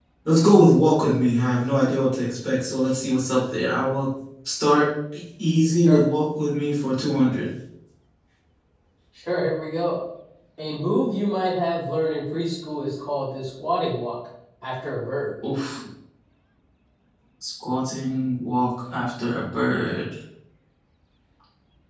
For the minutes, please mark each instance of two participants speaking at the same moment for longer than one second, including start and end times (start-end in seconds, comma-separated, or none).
none